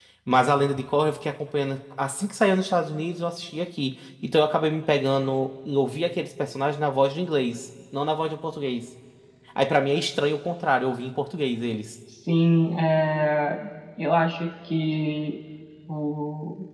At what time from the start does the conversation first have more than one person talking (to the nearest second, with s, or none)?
none